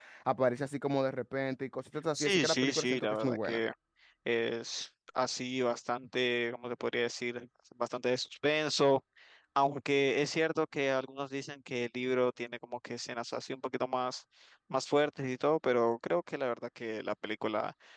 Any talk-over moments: Yes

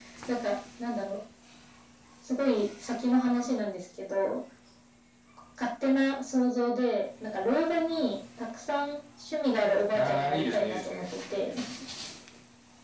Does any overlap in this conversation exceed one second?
Yes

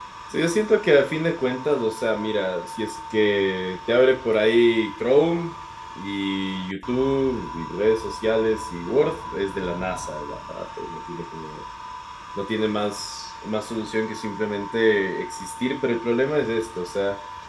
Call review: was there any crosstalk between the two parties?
No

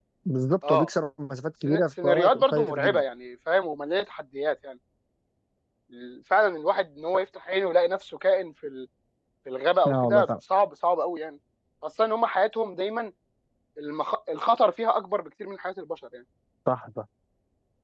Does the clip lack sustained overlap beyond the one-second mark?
No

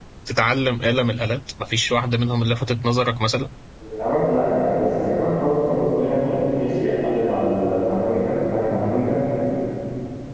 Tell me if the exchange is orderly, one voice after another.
Yes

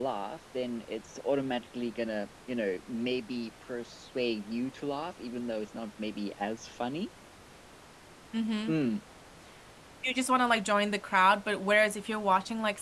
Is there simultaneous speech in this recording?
No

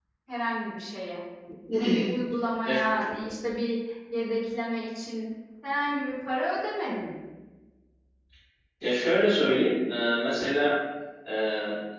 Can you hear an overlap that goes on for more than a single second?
No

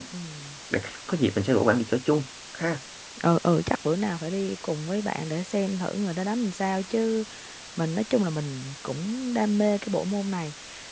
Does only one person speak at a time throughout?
Yes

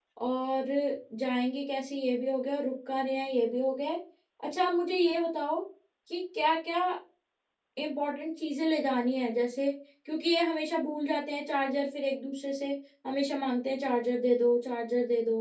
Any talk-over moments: No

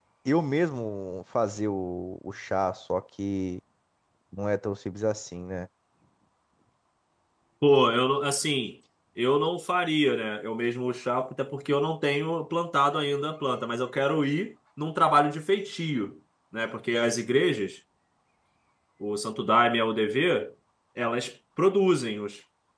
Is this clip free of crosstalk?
Yes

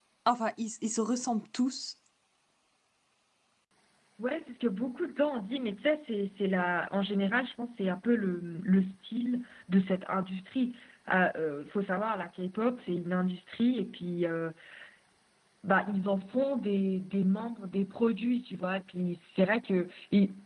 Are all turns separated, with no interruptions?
Yes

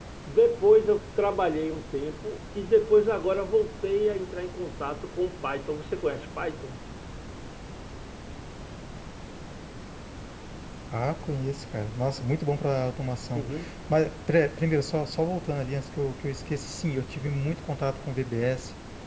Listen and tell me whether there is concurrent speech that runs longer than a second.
No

